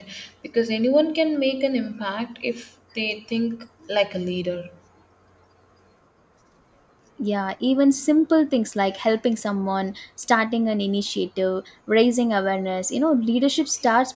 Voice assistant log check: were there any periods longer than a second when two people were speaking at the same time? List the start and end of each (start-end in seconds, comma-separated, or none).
none